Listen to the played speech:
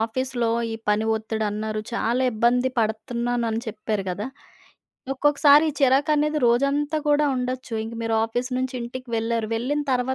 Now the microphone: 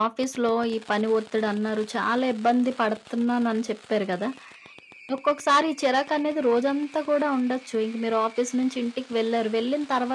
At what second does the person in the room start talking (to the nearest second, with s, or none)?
none